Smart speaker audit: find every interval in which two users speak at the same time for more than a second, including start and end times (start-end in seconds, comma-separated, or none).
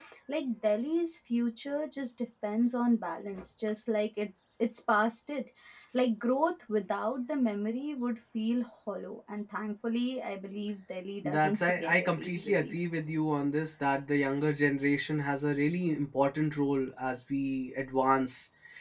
11.2-12.7